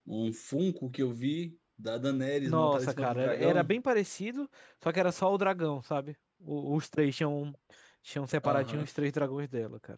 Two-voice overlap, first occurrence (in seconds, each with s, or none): 2.5 s